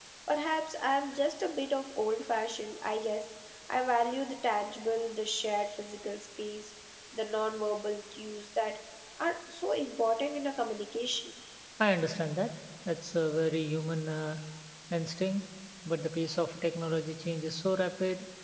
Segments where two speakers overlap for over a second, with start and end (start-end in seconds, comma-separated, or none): none